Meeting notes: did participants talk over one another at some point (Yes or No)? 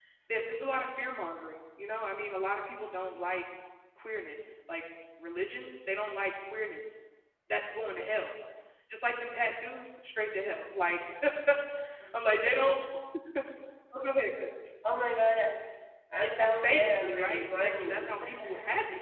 Yes